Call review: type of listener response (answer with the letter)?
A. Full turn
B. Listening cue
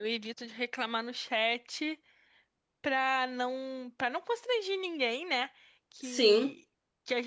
B